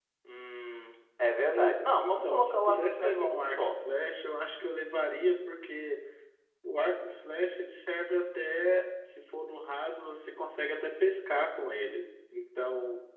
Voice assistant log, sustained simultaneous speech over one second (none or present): present